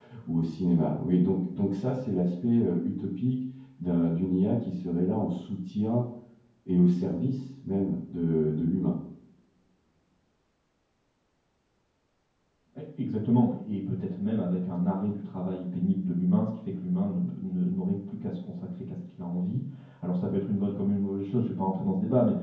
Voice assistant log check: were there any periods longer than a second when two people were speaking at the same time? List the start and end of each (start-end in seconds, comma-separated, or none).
none